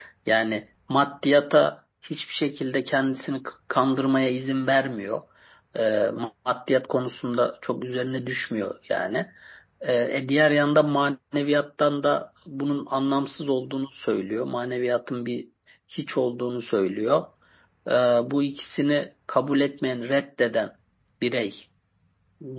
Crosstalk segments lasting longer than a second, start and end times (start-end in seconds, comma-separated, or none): none